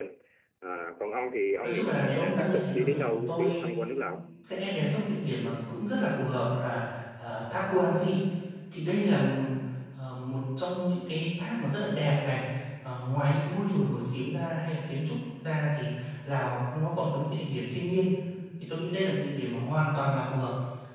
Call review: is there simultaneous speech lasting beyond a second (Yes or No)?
Yes